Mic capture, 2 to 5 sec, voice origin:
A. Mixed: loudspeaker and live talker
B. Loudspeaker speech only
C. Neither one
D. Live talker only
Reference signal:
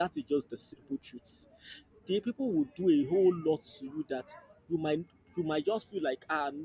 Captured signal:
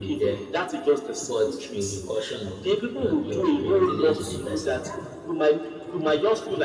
A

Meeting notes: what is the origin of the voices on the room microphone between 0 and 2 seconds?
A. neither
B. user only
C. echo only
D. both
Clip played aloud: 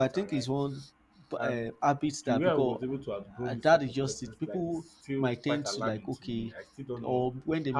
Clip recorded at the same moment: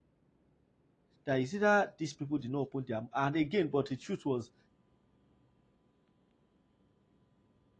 B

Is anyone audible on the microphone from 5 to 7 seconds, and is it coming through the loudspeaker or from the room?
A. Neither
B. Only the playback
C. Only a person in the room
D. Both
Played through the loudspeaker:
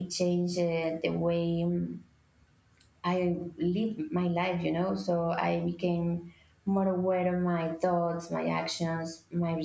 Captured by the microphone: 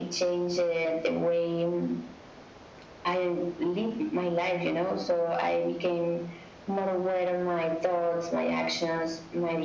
B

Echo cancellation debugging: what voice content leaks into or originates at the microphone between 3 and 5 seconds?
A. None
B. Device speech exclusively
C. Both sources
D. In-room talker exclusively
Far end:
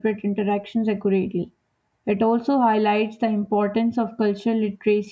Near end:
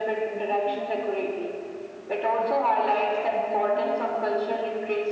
C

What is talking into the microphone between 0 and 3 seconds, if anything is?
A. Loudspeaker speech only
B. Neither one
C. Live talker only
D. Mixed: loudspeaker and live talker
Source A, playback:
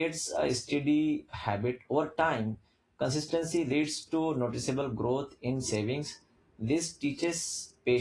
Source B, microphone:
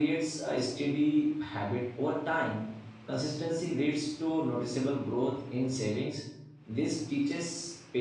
A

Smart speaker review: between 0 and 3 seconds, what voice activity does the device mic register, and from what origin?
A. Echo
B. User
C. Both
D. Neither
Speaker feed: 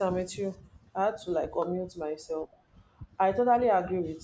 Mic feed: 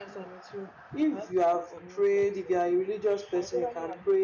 C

